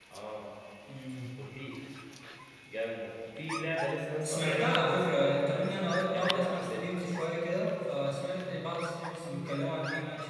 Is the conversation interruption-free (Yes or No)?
No